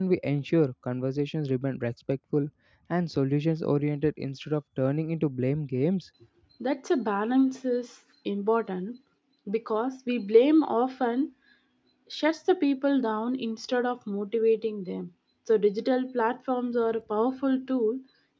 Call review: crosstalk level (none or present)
none